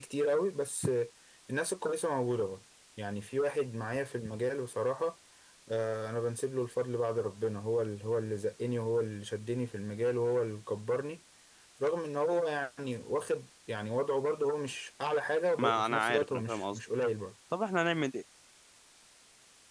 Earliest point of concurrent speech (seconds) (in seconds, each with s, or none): 15.6 s